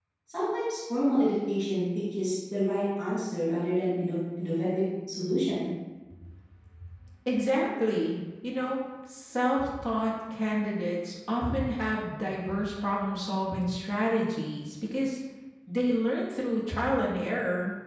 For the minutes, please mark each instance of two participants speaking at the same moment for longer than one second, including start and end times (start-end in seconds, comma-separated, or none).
none